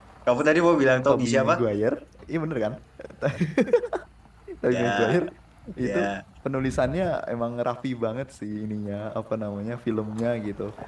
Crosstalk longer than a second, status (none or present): none